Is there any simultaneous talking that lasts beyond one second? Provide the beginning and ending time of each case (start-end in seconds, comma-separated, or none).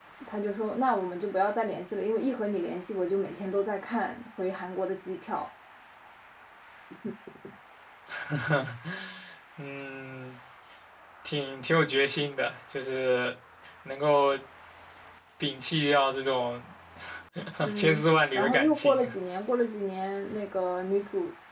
17.7-19.1